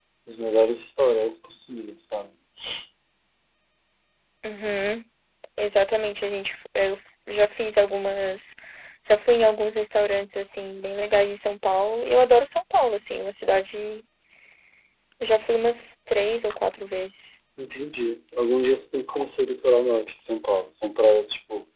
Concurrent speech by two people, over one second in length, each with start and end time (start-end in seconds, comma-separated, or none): none